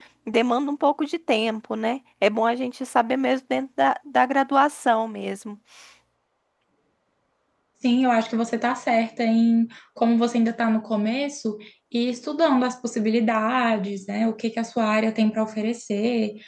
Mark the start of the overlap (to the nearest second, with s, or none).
none